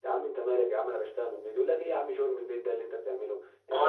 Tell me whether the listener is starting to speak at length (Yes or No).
Yes